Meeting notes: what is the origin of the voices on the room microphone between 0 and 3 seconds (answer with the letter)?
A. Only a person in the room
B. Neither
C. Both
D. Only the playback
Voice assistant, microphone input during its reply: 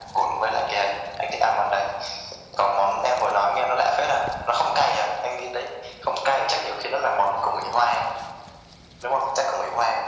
D